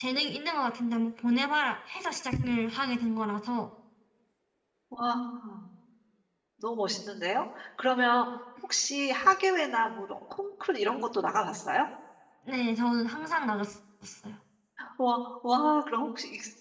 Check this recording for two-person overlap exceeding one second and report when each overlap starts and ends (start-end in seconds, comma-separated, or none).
none